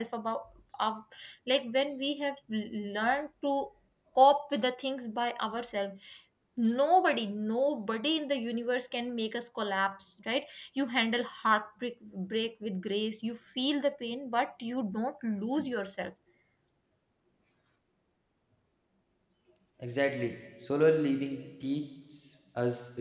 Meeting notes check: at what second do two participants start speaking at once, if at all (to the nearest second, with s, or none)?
none